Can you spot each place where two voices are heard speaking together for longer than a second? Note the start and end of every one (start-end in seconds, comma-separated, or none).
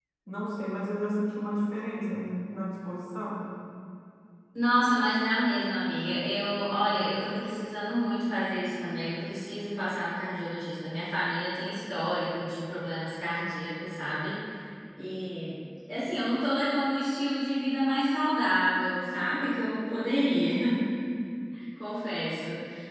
none